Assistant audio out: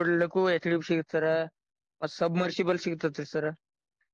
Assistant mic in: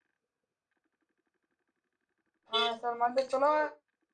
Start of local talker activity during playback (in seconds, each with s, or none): 2.5 s